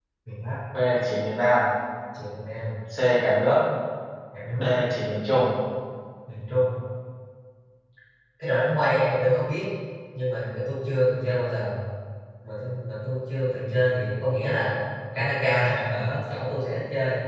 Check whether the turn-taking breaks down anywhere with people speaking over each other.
No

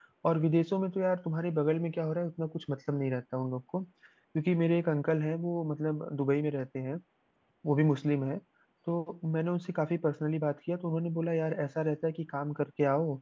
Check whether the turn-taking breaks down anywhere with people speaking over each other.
No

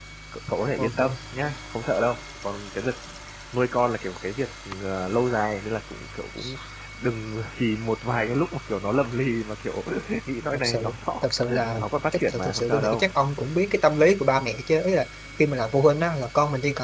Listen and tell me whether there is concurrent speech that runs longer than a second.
Yes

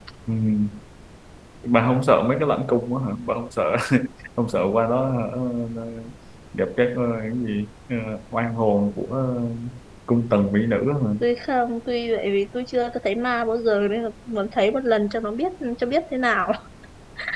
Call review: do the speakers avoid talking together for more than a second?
Yes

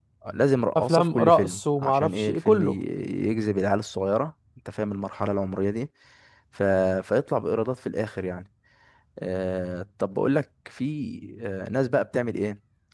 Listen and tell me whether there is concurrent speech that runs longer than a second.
Yes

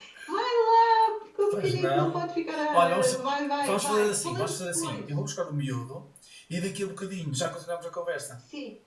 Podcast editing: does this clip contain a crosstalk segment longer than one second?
Yes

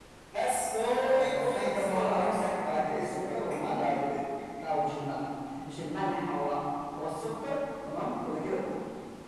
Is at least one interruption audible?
Yes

